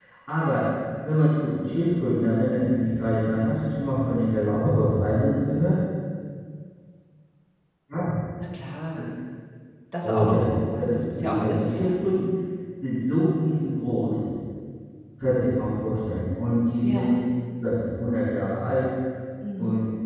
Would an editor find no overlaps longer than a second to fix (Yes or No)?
No